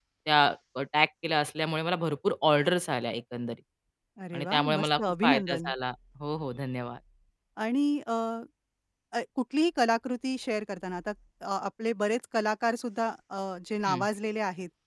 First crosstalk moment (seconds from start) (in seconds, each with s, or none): 4.3 s